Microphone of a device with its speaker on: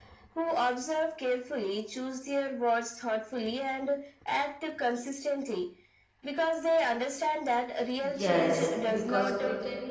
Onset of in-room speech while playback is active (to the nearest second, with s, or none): 8 s